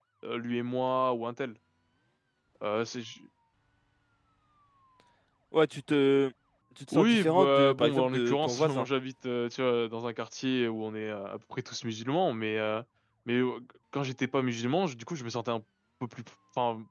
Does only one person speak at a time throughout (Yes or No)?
No